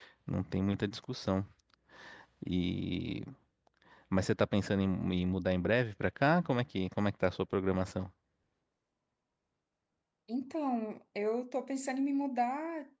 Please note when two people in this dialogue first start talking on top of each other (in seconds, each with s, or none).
none